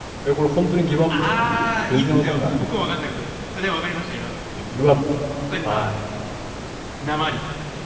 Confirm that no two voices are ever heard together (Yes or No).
No